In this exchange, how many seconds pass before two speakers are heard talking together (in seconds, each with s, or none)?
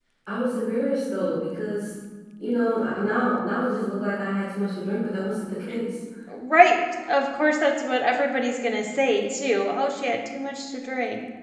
none